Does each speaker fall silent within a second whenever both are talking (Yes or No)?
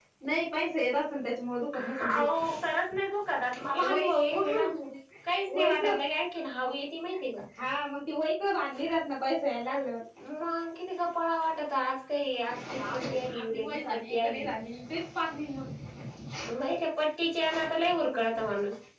No